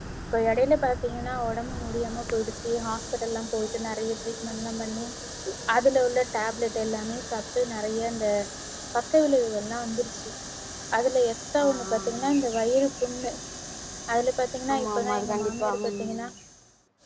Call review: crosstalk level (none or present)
present